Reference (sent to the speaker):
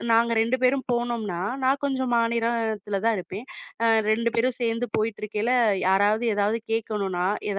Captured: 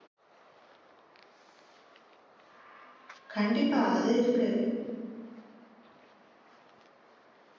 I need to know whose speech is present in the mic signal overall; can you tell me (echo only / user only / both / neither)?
user only